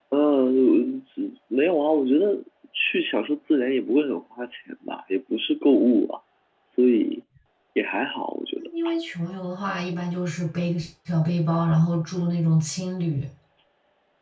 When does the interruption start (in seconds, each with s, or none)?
none